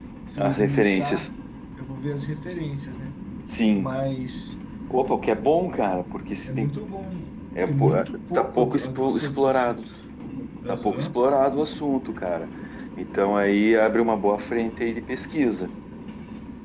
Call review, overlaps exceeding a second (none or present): present